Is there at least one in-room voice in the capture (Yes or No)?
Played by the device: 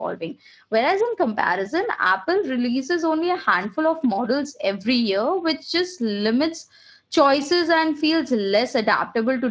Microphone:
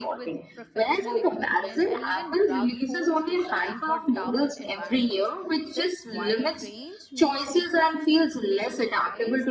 Yes